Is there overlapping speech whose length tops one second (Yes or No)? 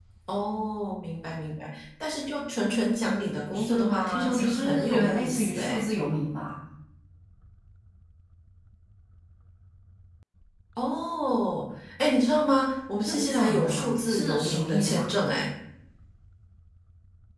Yes